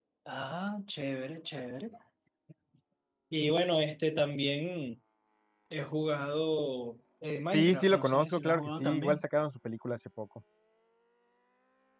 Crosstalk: present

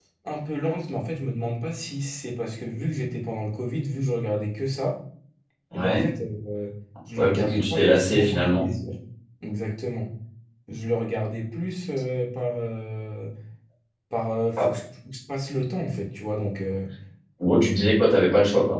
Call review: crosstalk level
present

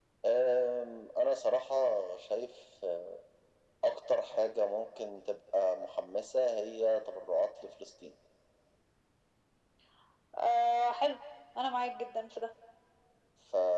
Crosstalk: none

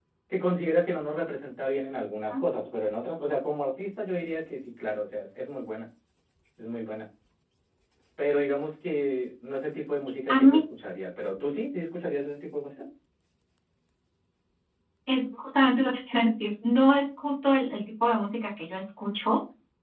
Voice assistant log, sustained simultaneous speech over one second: none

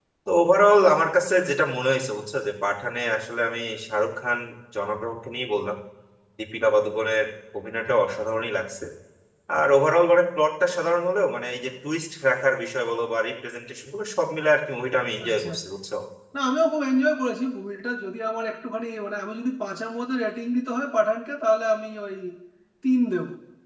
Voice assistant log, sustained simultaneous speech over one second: none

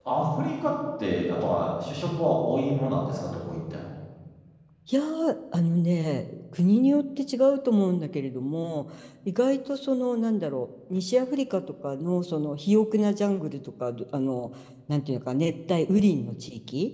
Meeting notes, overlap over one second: none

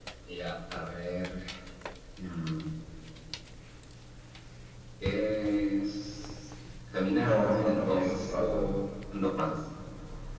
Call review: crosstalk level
present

